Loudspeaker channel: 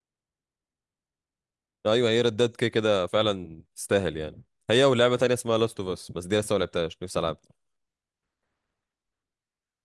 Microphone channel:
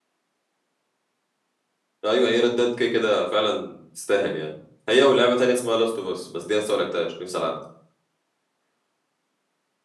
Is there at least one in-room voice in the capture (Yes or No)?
No